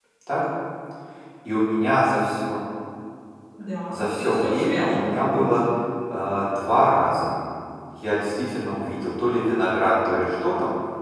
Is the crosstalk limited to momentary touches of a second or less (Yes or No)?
No